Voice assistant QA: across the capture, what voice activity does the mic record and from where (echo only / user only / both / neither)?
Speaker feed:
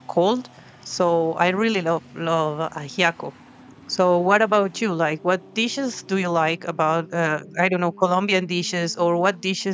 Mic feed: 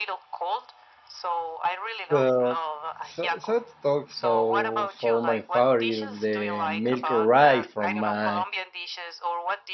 both